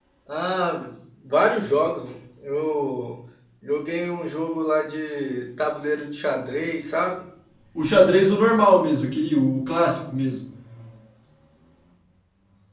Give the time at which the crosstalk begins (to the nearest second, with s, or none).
none